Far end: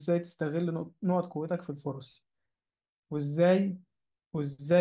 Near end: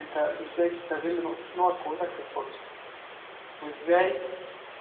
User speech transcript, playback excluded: none

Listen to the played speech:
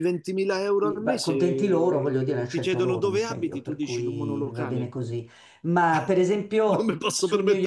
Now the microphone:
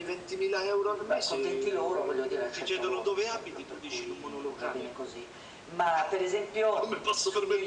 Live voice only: none

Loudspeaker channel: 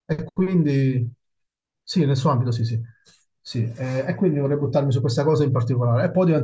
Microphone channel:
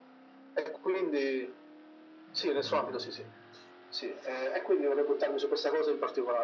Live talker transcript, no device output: Ho capito.

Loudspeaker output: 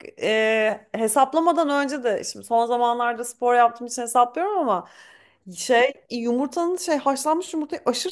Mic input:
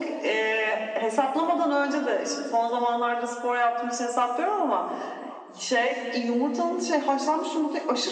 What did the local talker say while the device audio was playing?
none

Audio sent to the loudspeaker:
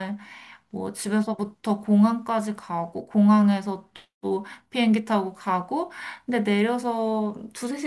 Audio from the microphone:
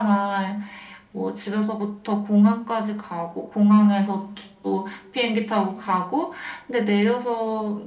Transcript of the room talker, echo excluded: none

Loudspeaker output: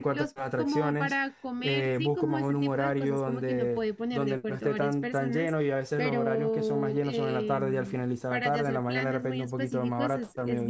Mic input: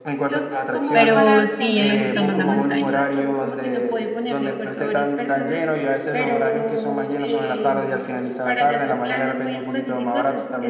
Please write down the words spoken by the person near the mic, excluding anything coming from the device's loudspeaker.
Pero sí, me gusta más la montaña.

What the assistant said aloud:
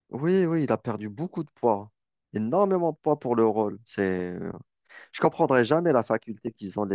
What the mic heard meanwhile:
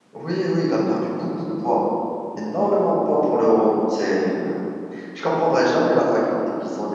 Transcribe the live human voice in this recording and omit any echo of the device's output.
none

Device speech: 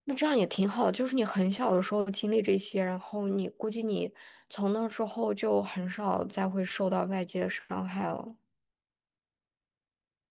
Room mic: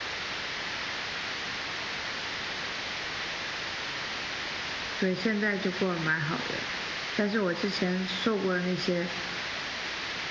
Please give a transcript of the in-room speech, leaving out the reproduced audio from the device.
对，现在就过得蛮好的，但是我之前受过的那些

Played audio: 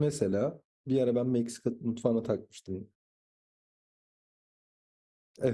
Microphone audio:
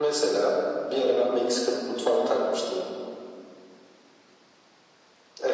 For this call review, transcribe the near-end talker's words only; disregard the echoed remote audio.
none

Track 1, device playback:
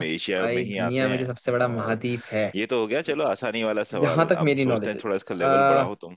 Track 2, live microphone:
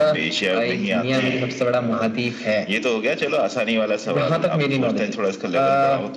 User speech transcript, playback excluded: ठीक है

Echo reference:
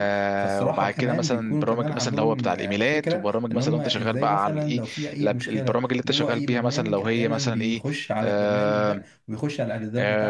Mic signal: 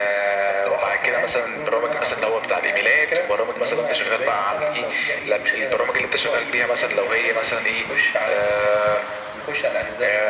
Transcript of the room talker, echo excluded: none

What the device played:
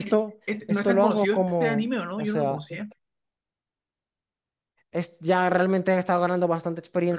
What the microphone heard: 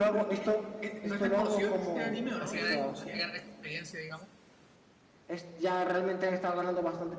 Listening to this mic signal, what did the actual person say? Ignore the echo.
así ganar, así ganar experiencia, digamos.

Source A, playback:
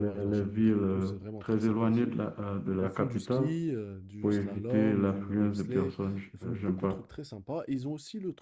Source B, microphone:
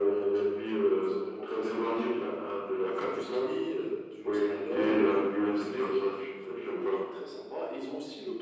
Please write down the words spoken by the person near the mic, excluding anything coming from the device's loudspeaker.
none

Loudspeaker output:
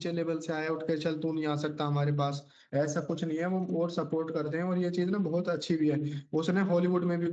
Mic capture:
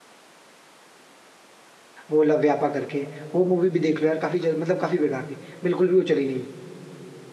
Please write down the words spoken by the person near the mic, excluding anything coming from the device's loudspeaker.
वो लव व्यापा करके वो मूवी भी देख लो यार काफी जल- मतलब काफी बेकार थी बिल्कुल भी वो चली नहीं

